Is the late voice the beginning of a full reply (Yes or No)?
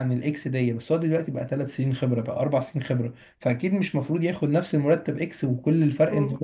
Yes